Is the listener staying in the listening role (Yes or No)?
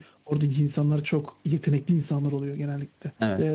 No